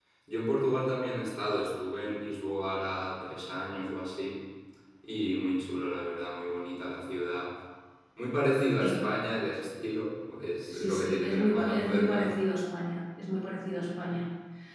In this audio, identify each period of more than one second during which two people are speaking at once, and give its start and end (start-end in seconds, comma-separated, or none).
10.7-12.3